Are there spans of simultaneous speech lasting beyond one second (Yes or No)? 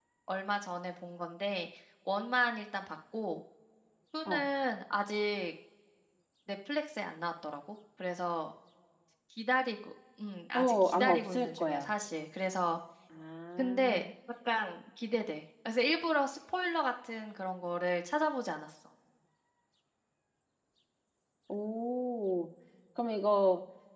Yes